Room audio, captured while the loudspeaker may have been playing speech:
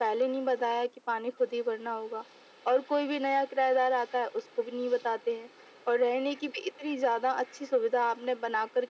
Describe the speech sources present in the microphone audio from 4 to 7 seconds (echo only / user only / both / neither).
echo only